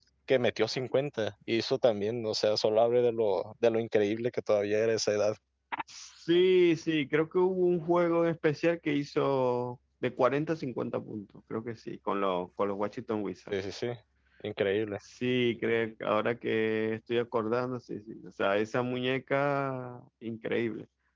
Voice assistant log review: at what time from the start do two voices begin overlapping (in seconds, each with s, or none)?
none